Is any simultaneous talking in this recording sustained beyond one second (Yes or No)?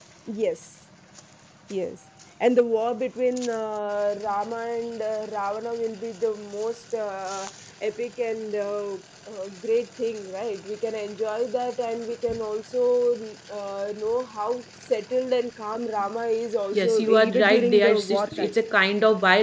Yes